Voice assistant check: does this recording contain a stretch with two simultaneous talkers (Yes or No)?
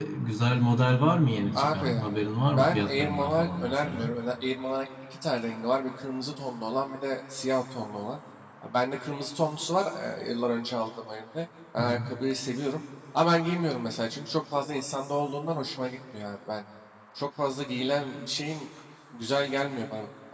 Yes